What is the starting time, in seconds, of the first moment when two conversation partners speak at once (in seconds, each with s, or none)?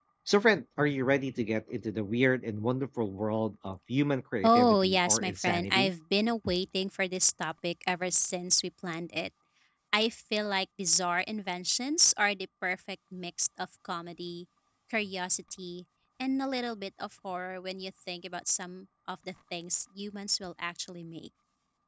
4.4 s